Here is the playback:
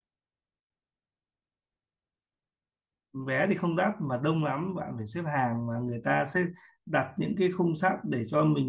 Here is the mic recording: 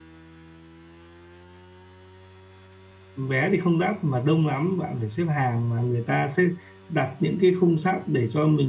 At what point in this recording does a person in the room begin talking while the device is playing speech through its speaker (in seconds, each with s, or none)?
none